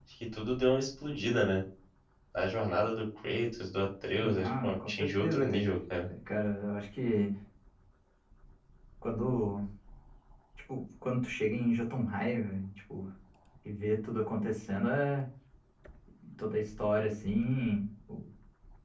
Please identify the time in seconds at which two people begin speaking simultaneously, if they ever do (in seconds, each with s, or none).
4.2 s